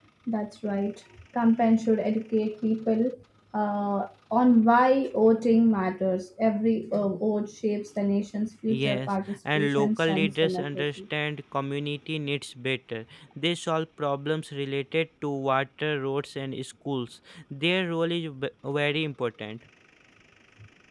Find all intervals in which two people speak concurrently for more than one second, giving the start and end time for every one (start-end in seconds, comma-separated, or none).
8.7-11.0